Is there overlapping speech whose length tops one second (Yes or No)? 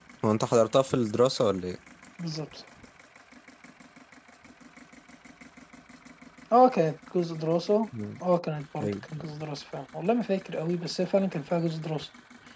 No